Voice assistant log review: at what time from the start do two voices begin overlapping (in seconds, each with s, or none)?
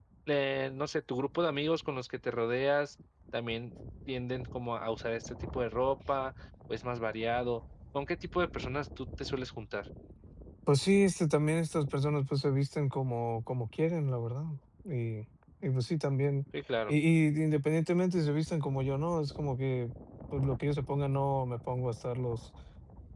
none